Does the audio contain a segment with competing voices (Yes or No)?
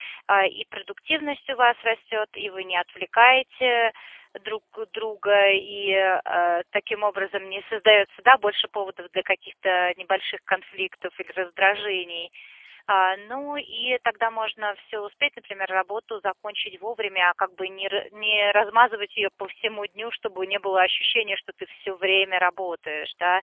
No